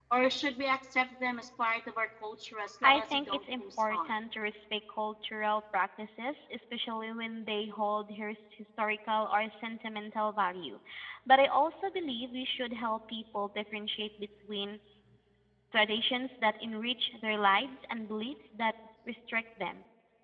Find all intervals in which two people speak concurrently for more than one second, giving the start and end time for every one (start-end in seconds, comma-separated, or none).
2.8-4.1